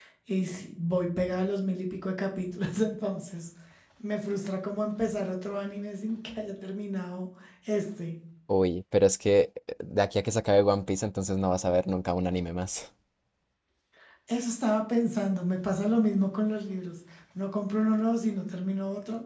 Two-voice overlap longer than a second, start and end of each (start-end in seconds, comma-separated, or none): none